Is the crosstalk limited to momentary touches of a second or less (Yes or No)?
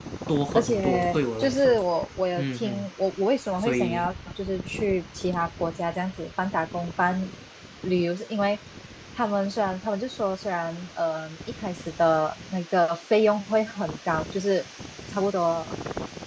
No